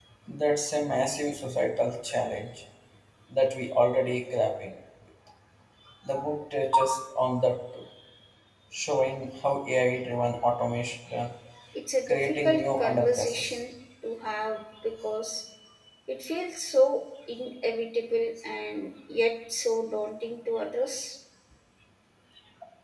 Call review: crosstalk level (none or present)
present